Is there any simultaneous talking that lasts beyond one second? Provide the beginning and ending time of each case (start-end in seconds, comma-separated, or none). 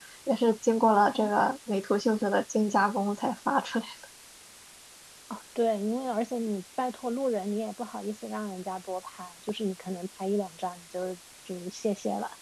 none